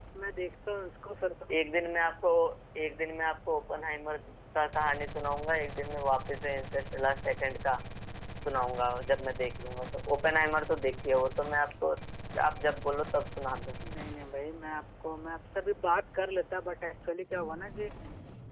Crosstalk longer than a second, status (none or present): none